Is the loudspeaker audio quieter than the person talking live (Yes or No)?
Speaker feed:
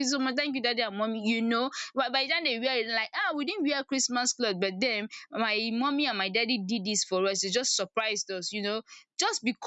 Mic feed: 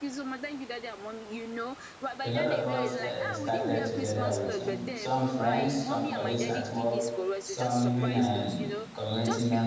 Yes